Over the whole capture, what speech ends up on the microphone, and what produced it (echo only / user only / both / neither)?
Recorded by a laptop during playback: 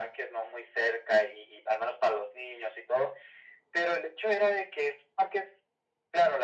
echo only